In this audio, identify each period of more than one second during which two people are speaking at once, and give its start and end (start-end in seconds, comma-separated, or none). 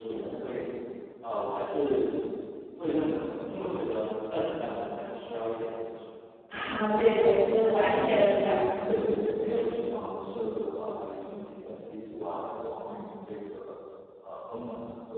6.7-7.9